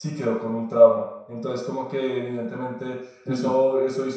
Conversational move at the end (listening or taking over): listening